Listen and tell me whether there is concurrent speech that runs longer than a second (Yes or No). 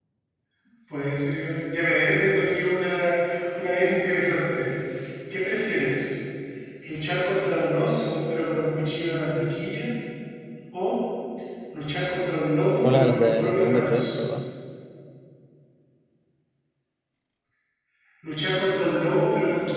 Yes